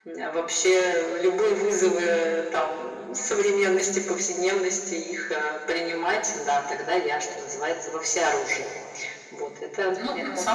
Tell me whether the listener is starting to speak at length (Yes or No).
Yes